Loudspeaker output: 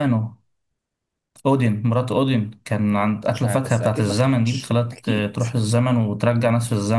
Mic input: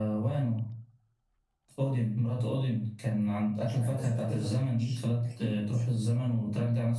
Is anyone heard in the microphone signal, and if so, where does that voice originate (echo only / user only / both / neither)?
echo only